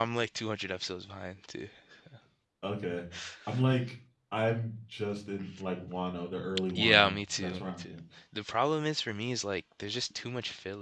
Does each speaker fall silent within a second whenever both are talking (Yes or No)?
No